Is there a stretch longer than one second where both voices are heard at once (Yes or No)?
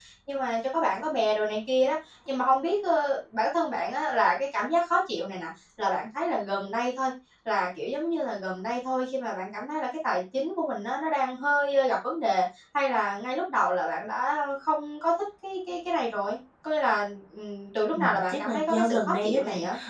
Yes